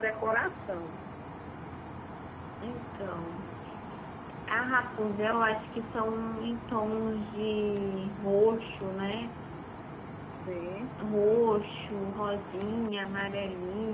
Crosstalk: none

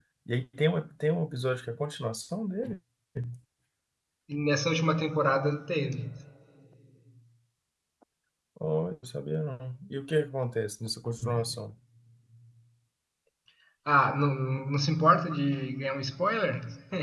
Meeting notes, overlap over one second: none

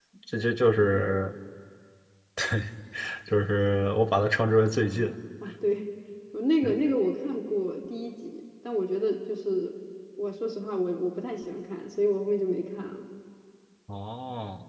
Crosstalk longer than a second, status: none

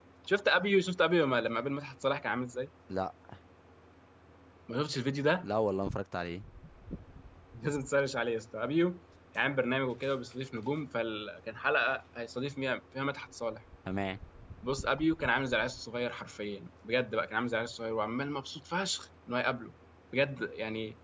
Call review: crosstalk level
none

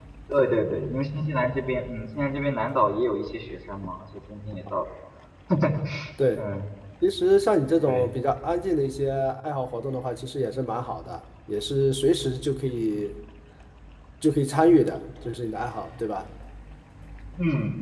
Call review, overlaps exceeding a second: none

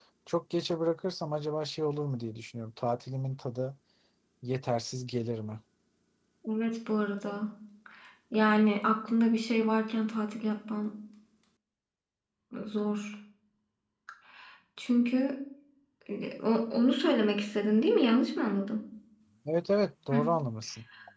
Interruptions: none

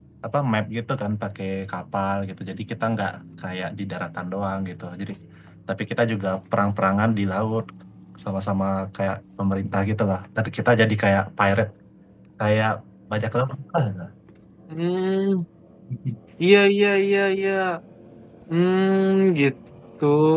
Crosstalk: none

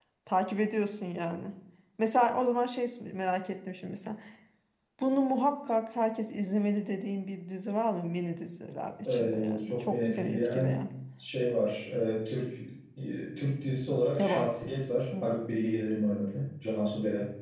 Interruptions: present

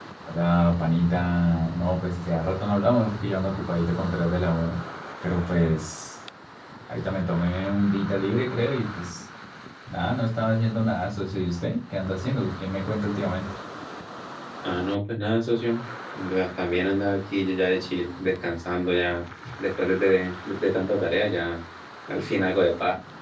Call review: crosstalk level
none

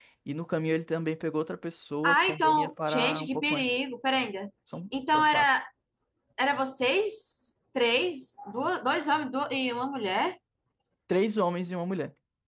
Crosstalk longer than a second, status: present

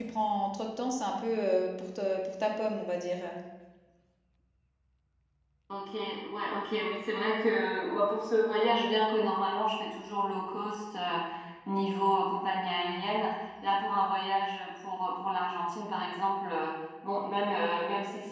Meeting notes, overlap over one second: none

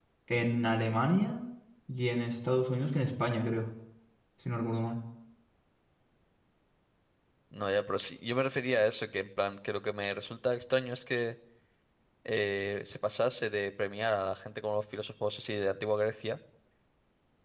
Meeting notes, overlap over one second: none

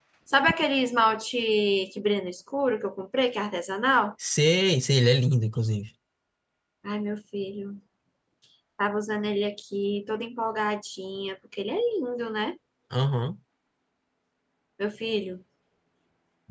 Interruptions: none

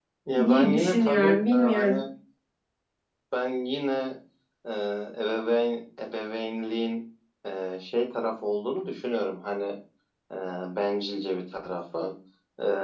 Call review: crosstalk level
present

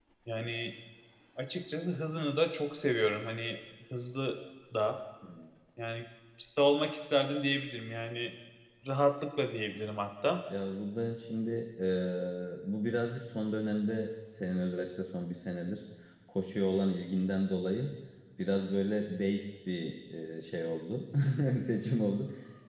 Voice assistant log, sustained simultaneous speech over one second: none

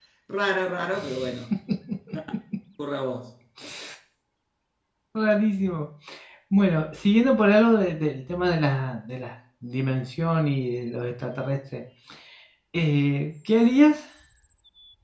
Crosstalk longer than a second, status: none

